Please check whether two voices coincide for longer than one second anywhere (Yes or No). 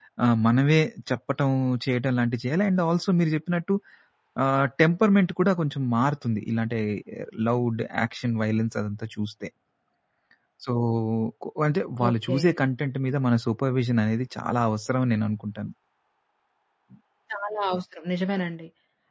No